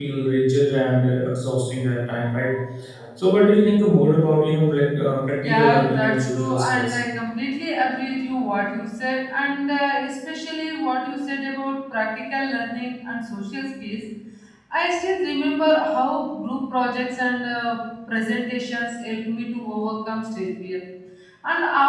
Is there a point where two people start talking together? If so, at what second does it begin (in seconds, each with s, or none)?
5.4 s